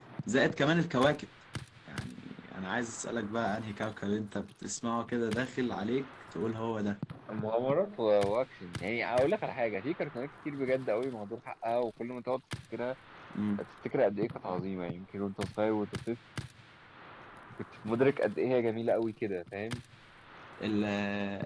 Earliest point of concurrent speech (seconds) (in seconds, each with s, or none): none